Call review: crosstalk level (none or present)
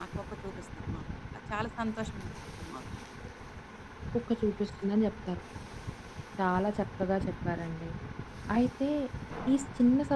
none